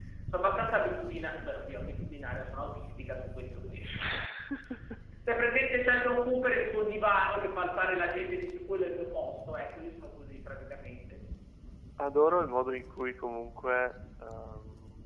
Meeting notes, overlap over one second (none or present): none